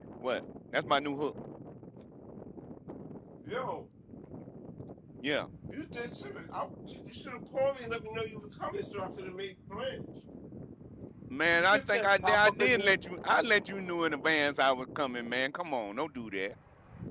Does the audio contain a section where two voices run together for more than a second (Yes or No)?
Yes